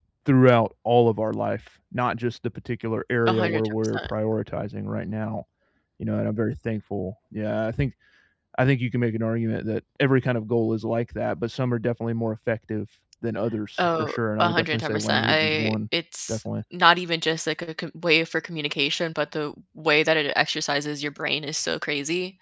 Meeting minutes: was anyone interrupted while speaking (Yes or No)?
Yes